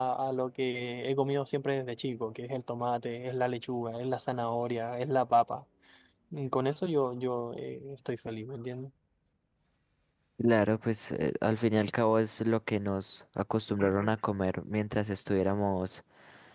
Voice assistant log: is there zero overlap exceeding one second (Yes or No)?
Yes